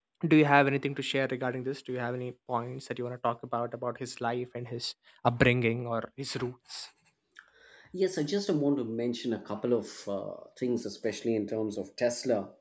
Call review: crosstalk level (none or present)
none